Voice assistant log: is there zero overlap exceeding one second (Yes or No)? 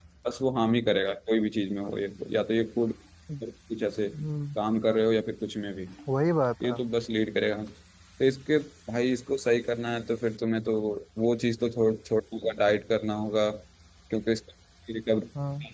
Yes